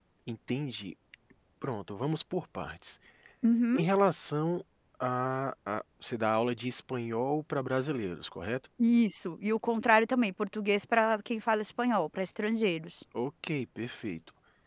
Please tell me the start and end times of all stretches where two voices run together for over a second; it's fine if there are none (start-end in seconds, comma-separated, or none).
none